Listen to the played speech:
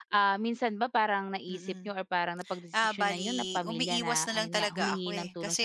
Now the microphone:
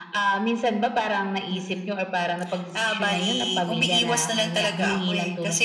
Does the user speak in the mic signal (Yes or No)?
No